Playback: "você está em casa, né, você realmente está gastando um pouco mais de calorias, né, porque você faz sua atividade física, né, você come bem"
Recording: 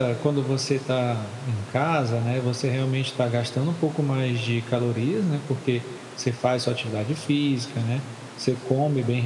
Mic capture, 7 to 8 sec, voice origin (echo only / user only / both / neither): echo only